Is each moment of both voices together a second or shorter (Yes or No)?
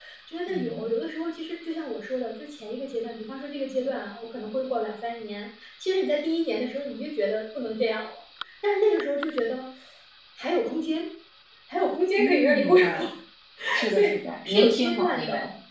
No